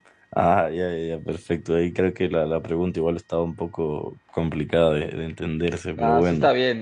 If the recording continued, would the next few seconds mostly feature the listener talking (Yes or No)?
Yes